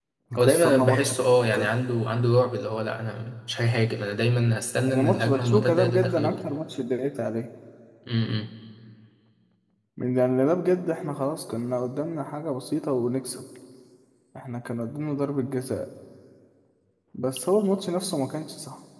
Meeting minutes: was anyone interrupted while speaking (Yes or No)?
Yes